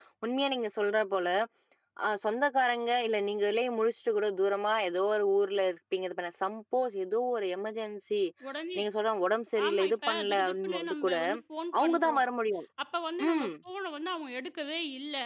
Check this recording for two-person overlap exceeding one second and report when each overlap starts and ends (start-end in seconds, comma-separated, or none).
9.7-11.2